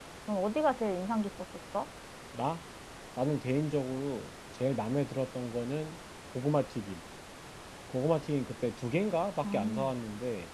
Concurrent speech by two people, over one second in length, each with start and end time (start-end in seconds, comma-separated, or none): none